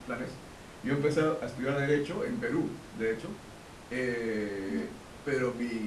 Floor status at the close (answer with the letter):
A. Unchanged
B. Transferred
A